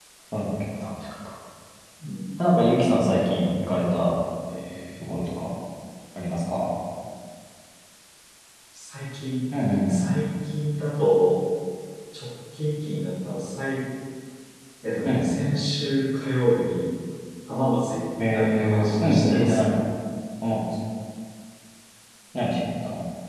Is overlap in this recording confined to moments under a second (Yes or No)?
No